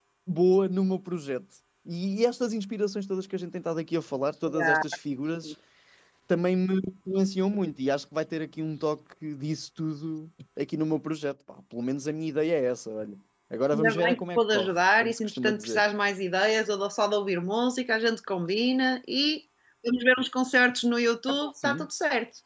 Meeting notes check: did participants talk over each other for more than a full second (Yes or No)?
Yes